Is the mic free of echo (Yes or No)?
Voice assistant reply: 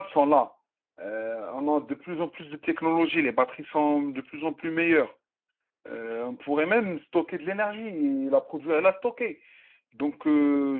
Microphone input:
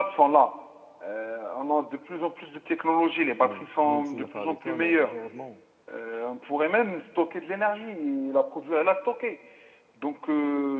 No